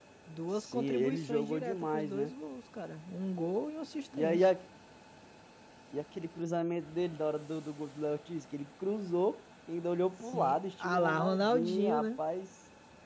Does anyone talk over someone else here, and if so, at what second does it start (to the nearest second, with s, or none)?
1 s